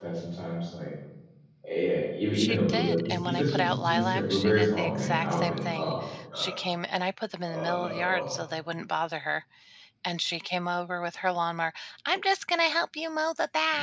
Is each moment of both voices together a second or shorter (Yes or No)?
No